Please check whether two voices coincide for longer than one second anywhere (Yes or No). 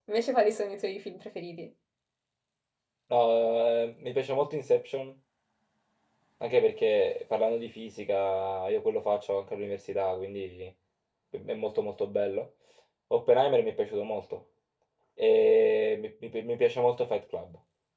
No